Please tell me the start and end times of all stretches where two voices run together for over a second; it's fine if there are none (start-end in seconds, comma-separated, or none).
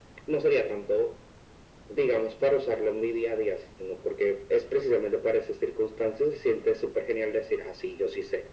none